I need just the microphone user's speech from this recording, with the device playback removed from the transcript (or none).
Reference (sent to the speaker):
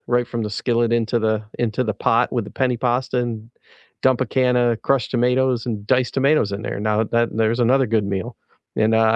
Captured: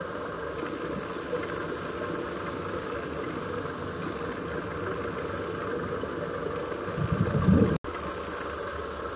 none